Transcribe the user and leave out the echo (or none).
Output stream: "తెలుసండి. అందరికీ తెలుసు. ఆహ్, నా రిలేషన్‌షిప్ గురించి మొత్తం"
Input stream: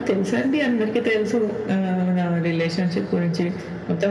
none